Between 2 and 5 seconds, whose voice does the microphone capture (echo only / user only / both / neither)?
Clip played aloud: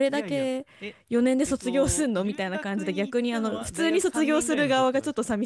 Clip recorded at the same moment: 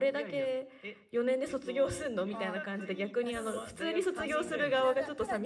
both